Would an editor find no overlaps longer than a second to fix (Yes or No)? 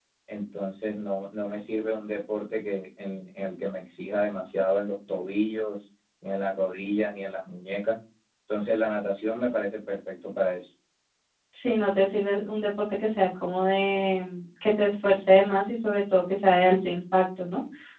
Yes